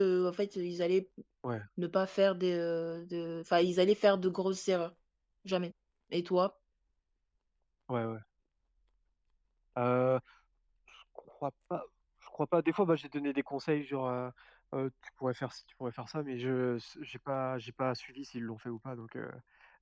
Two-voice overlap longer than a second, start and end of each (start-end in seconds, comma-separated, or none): none